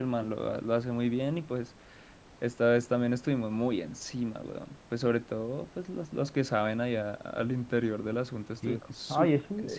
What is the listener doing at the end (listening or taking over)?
taking over